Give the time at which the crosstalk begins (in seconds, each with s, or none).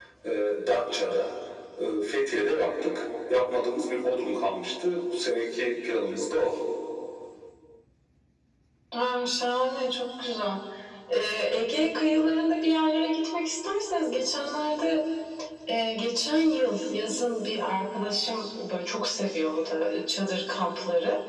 none